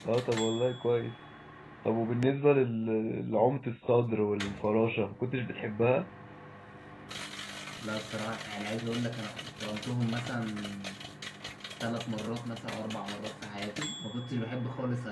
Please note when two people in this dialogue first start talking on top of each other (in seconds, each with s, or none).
none